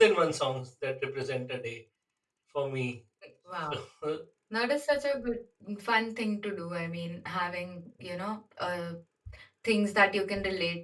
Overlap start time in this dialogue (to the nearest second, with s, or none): none